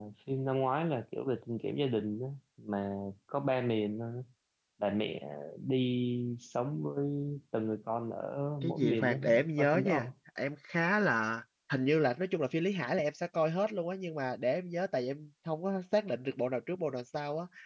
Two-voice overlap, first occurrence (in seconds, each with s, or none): 8.6 s